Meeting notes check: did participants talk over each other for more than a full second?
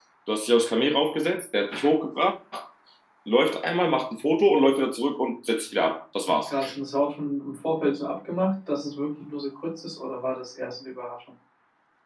No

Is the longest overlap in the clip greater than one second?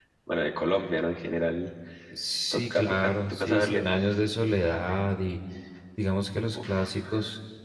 Yes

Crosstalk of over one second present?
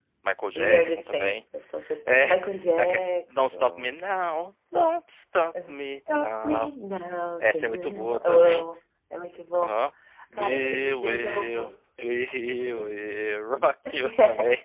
Yes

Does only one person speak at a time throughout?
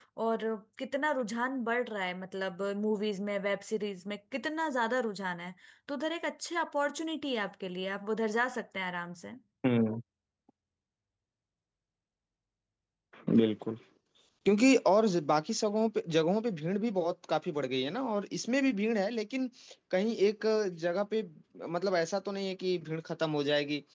Yes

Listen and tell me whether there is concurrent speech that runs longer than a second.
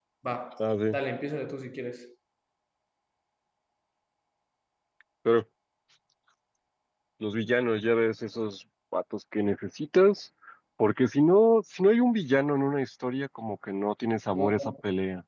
No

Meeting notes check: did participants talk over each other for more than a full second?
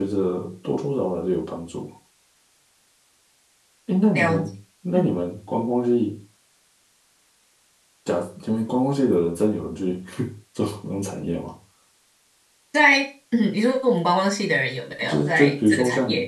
Yes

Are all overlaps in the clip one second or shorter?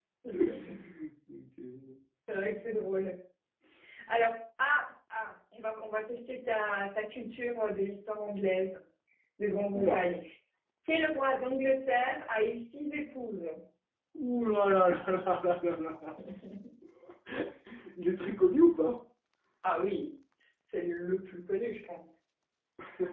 Yes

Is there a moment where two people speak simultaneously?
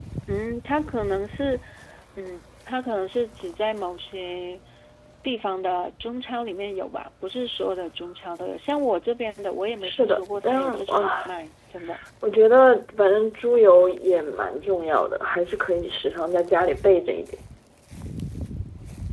Yes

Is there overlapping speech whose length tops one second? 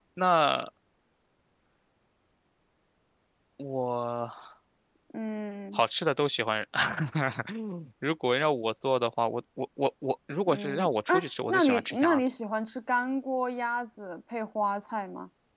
Yes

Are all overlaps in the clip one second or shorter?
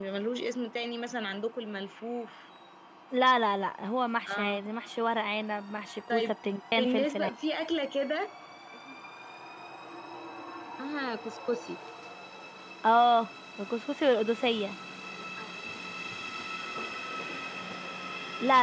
Yes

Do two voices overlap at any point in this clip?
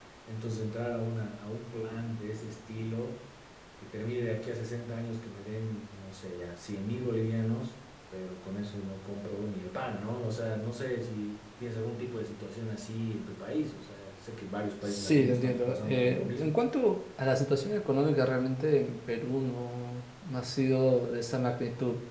Yes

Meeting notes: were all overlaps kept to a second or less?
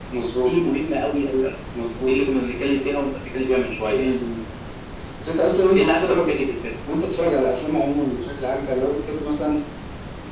Yes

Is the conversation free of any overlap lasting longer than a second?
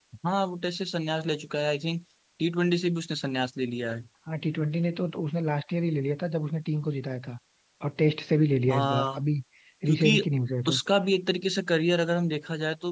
Yes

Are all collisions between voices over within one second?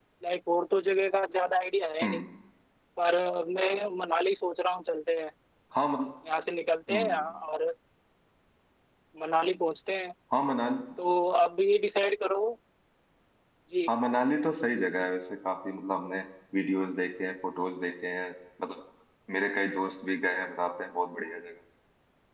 Yes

